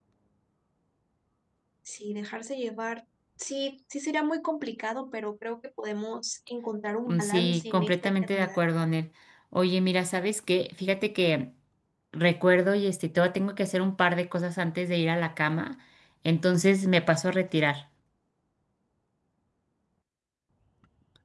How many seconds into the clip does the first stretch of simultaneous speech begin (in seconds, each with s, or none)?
7.1 s